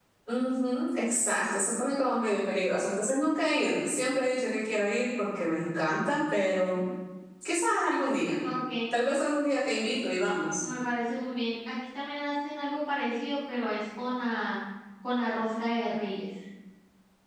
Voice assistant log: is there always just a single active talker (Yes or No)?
Yes